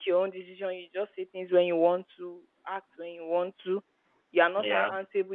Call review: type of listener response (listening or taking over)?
listening